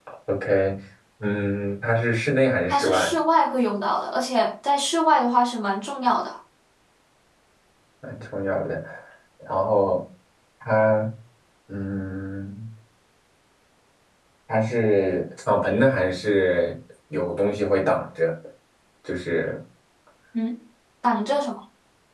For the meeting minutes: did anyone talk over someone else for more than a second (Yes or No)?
No